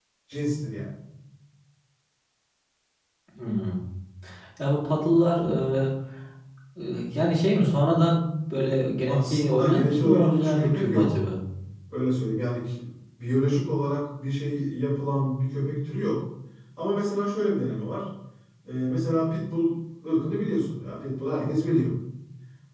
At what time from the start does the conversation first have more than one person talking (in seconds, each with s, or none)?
9.1 s